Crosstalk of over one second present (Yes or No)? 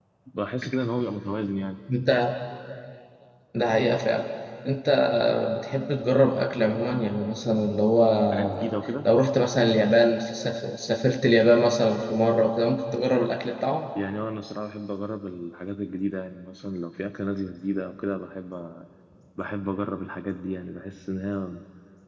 No